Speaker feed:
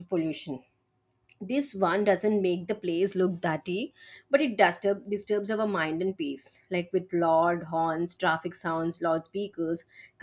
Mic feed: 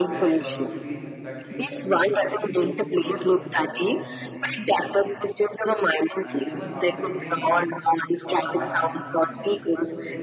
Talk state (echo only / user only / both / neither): both